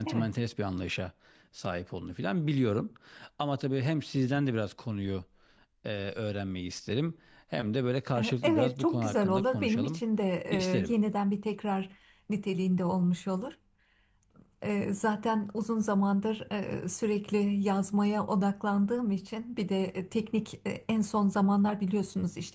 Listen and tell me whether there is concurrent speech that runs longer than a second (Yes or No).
Yes